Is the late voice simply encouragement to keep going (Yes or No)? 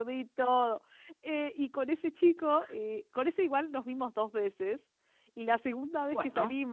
Yes